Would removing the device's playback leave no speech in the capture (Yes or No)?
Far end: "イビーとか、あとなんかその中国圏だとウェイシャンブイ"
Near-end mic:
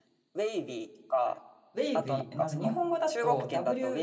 No